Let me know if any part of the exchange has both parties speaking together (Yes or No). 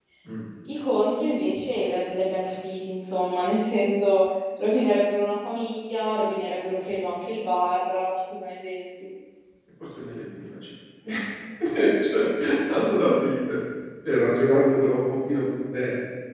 No